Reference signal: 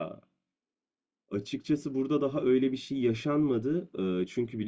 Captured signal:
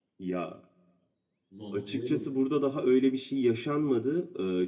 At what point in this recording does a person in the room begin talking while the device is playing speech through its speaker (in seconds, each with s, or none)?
1.5 s